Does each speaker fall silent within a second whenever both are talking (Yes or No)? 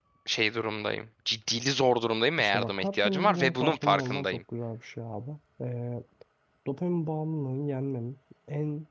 No